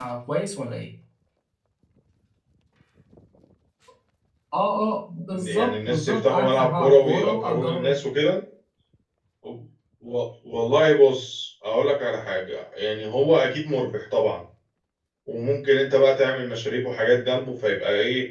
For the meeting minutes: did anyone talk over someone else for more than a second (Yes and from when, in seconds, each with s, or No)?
Yes, from 5.3 s